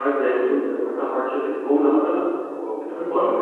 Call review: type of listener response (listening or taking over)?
taking over